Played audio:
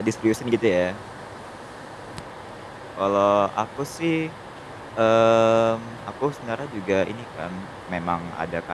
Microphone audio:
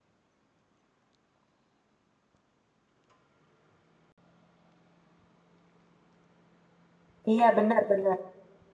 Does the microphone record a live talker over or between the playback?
Yes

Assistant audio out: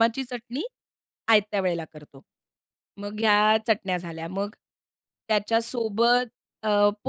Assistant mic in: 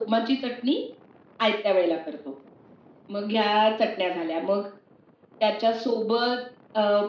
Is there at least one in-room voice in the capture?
No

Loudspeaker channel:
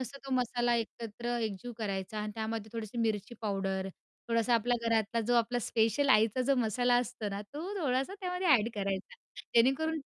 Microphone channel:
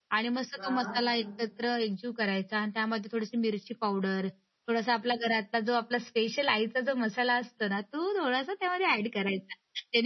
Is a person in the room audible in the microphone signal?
Yes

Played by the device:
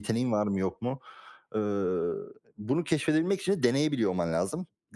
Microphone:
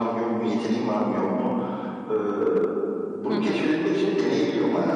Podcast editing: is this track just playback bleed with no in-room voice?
No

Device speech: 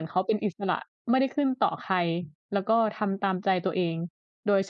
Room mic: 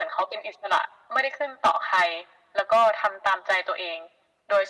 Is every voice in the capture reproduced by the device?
Yes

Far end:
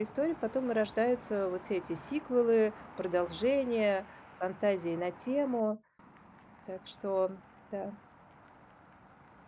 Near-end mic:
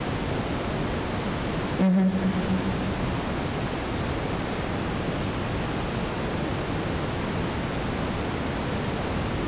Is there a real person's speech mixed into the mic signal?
Yes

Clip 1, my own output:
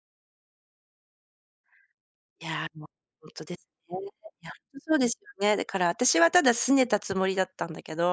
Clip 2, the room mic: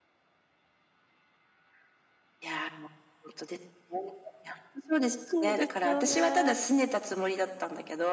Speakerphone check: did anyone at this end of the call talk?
Yes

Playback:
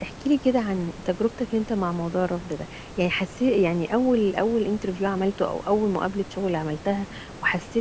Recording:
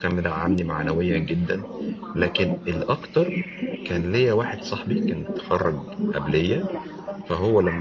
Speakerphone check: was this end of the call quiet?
No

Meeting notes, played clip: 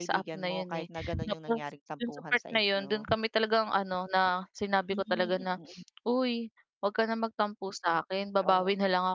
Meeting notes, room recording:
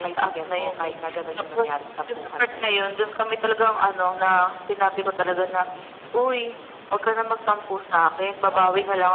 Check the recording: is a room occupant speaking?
No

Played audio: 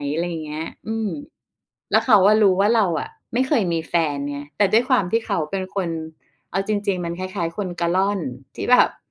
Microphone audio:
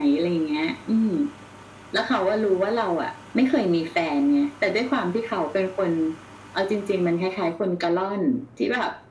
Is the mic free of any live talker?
Yes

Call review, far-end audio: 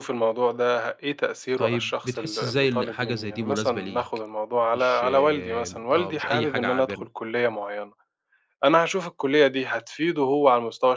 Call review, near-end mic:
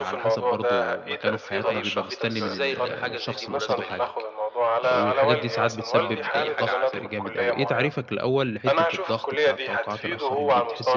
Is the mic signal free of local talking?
No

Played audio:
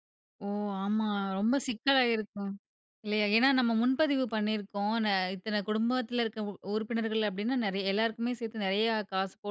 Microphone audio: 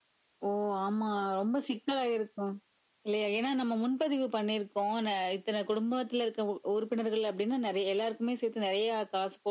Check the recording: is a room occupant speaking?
No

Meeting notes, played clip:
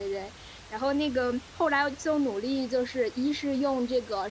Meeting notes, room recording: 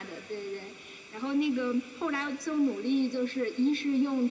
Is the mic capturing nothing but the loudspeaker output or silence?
Yes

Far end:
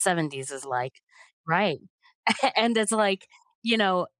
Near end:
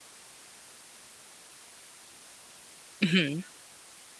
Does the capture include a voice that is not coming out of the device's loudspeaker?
Yes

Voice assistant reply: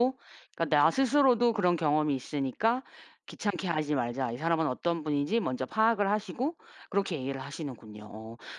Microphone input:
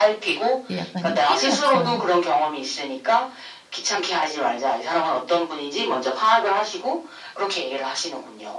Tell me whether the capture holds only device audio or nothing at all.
No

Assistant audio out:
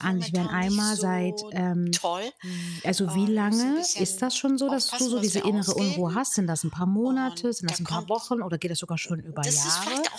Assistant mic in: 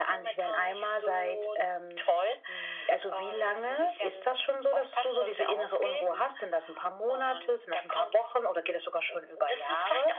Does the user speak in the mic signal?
No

